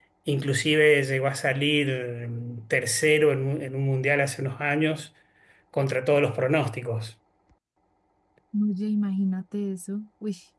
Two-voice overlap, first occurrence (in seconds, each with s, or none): none